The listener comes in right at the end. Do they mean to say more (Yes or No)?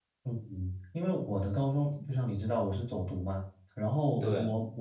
No